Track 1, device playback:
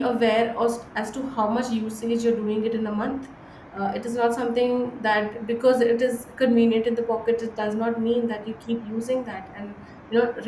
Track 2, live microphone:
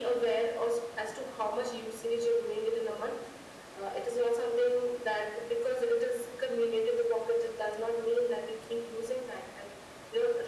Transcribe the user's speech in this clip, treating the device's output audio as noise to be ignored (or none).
none